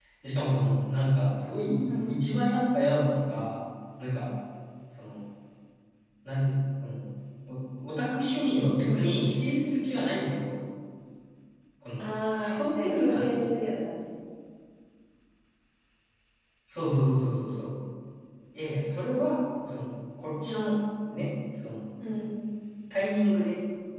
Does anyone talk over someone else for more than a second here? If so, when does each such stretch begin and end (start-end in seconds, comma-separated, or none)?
12.0-13.5